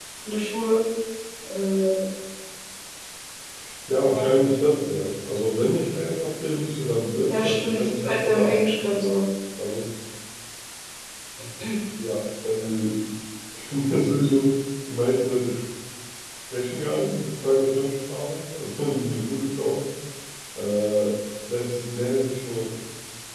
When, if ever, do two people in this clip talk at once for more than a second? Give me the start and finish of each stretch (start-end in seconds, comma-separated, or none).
7.3-8.6